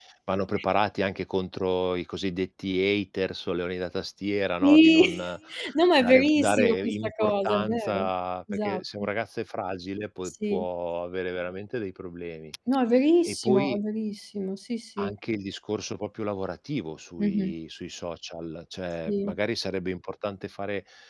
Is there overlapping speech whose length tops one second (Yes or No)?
Yes